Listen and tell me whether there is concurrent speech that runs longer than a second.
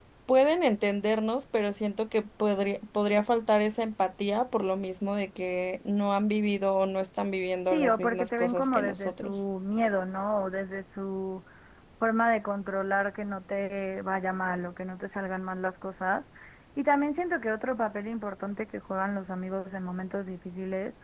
Yes, from 7.7 s

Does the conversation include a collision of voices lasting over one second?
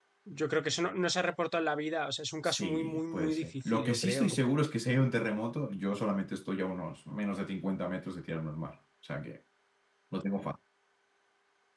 Yes, from 2.5 s

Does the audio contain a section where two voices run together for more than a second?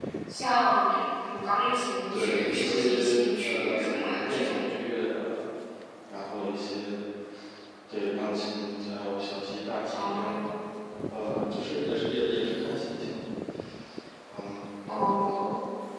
Yes, from 2.1 s

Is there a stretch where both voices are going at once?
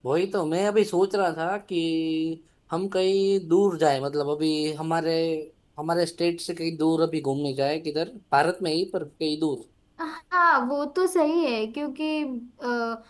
No

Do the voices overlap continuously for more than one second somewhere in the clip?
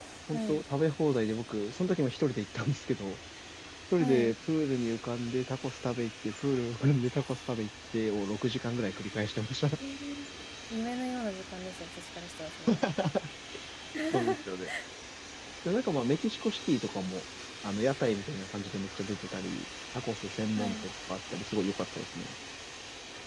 No

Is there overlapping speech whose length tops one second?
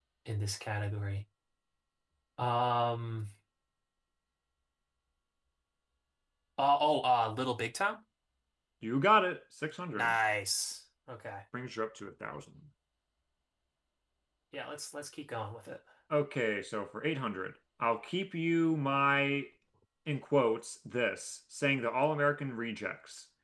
No

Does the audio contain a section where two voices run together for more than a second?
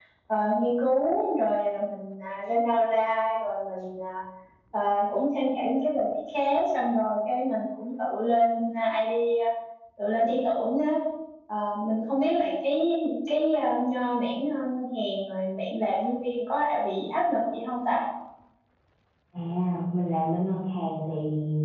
No

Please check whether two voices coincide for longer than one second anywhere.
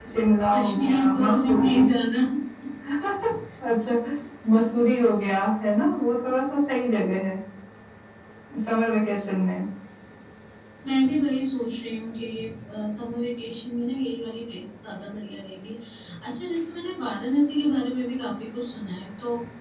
Yes, from 0.5 s

